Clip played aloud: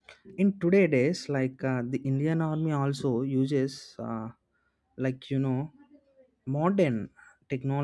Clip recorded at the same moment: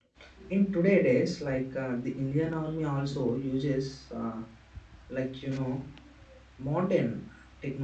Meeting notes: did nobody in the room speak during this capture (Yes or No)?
Yes